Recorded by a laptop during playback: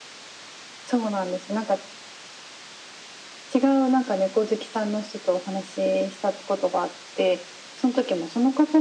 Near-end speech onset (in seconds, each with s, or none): none